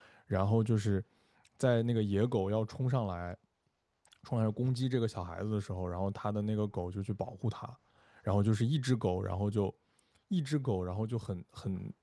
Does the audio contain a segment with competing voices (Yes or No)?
No